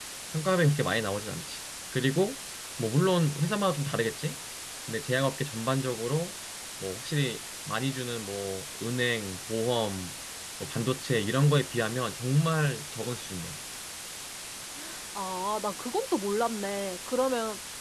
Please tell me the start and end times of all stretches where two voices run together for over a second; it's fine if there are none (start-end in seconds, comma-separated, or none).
none